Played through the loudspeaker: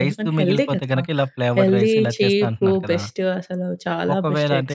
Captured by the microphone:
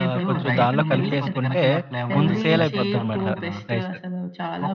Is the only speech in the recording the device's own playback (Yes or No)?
No